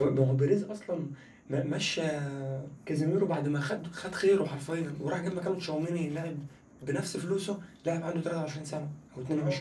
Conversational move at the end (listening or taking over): taking over